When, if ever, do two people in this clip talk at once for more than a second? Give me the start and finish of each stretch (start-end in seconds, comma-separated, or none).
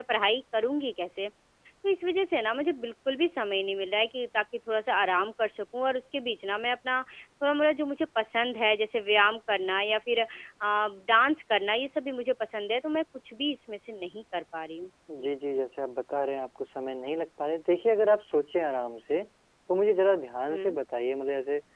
none